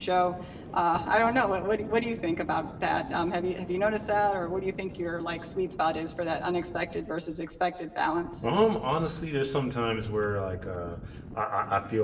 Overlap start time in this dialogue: none

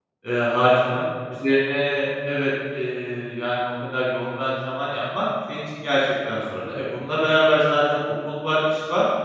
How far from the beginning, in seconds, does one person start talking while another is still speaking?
none

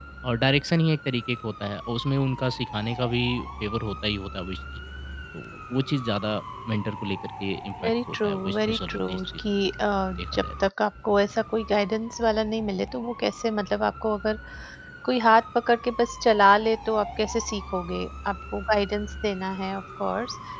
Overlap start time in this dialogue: 8 s

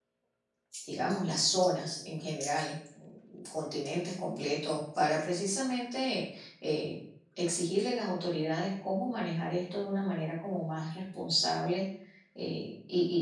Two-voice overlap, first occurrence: none

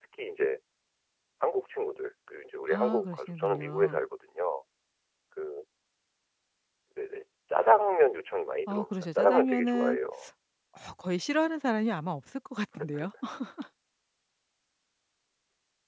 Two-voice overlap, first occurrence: 3 s

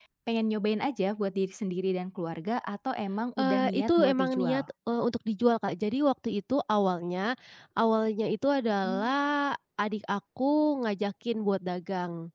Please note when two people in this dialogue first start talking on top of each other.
3 s

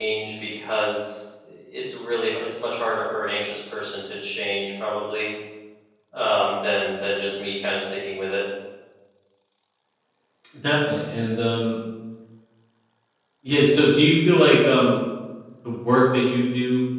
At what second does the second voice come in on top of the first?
none

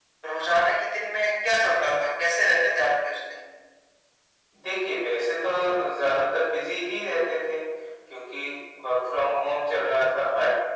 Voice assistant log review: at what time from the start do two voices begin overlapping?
none

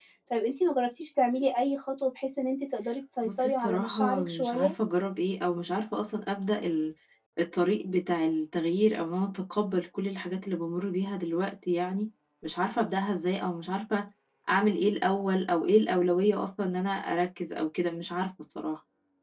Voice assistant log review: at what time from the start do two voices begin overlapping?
3 s

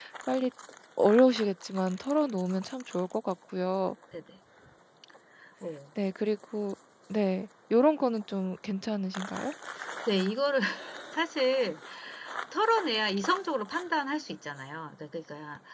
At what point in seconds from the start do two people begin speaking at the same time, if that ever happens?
none

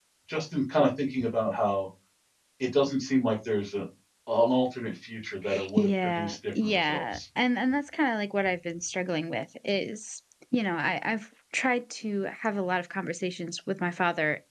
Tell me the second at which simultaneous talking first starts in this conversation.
6 s

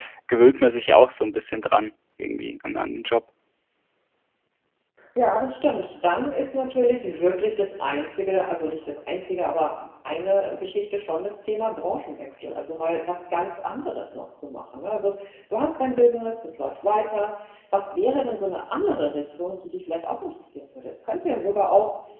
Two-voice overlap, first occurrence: none

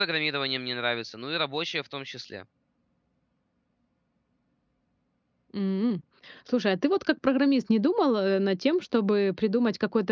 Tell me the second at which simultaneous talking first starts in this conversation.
none

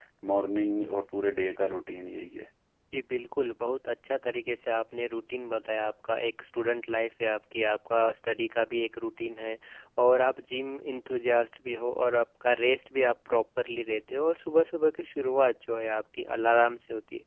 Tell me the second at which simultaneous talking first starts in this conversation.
none

